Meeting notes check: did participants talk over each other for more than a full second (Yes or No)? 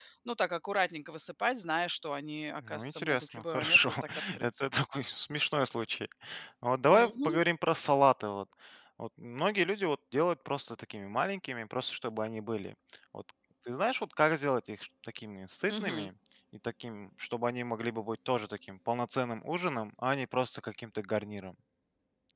Yes